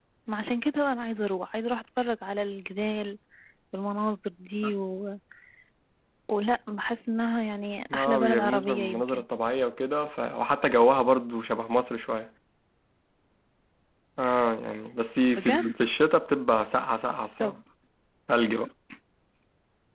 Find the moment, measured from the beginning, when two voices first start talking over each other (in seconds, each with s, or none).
7.9 s